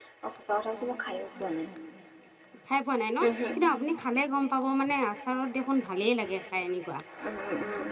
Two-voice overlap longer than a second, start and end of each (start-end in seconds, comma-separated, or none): none